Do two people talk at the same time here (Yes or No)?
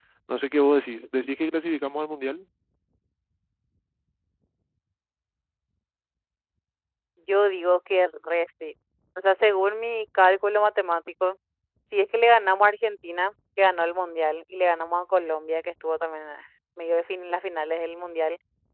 No